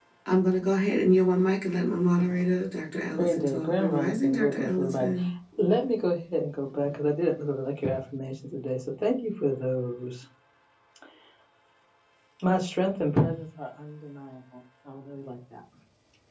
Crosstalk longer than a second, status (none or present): present